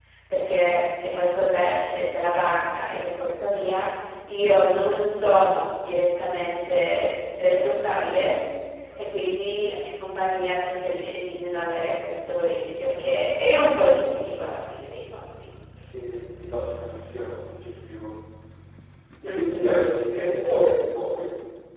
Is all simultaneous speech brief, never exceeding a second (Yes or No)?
Yes